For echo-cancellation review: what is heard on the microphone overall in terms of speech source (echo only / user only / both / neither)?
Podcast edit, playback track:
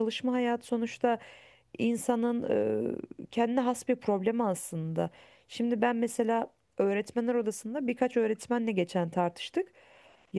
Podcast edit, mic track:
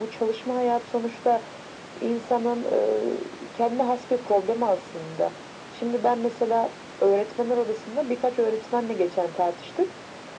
echo only